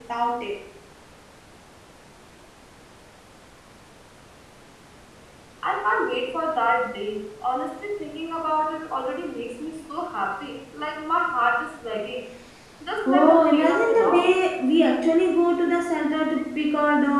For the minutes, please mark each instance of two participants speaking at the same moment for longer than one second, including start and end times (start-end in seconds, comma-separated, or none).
13.1-14.3